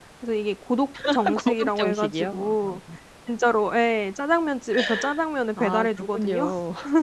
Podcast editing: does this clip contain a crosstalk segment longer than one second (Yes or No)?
Yes